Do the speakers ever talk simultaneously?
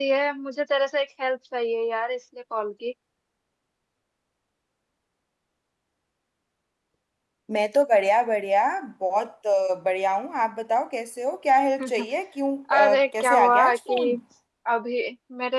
Yes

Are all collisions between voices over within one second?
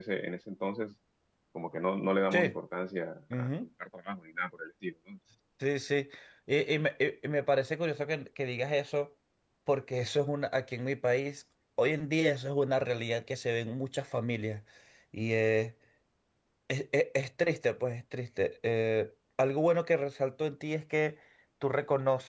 Yes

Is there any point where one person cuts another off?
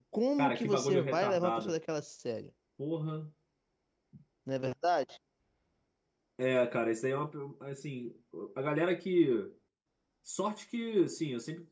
Yes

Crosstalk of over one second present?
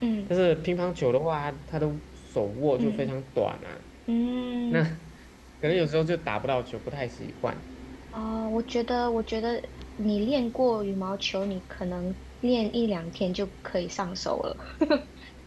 No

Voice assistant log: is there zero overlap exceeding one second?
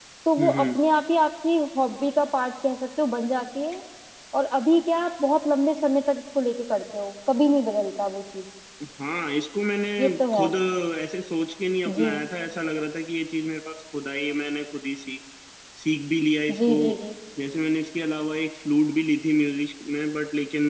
Yes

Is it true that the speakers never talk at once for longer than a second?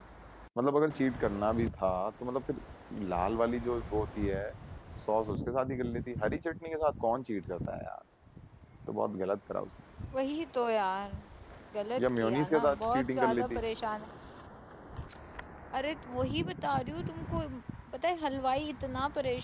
No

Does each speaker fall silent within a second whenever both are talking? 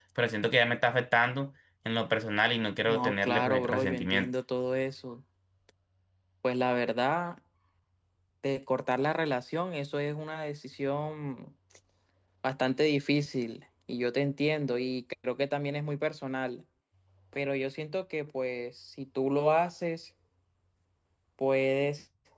No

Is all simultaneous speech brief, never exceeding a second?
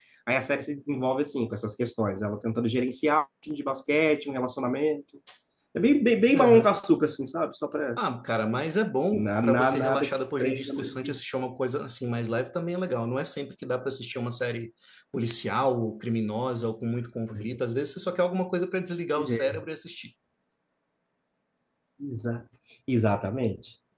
No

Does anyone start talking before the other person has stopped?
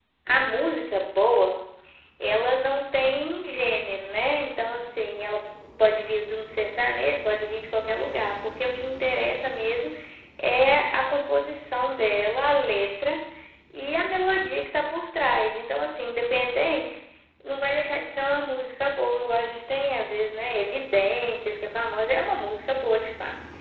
No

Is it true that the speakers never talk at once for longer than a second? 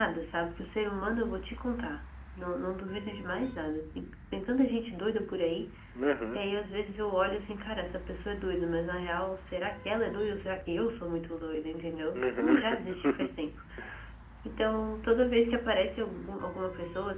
No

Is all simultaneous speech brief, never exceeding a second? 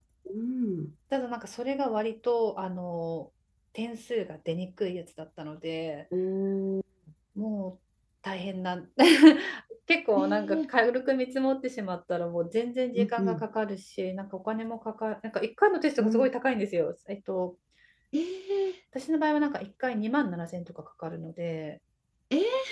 Yes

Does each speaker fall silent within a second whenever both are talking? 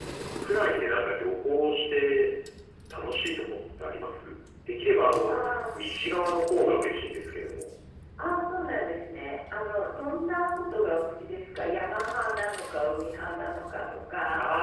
Yes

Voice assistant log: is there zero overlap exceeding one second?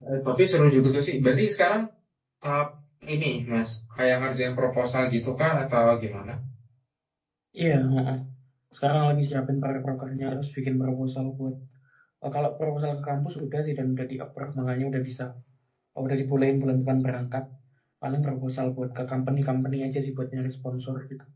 Yes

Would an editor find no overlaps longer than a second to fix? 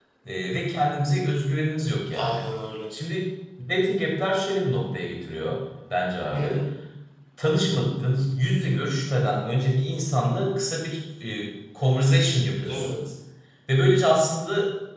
Yes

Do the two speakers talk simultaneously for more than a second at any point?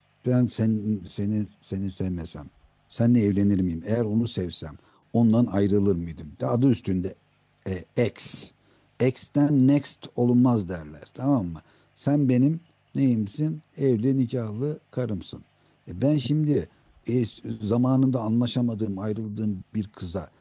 No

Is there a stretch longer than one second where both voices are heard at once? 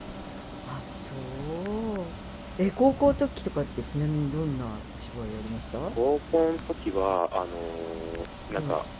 No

